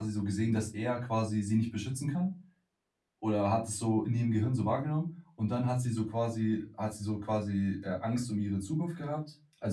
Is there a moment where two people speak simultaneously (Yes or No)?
No